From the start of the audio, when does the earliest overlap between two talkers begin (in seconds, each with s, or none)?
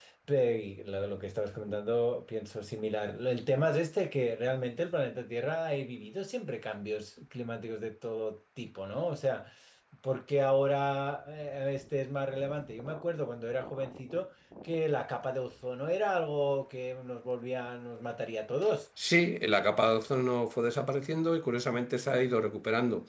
none